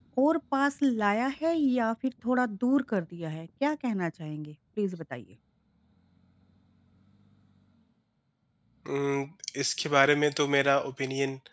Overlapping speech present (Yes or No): No